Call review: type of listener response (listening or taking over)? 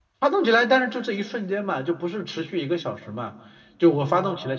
listening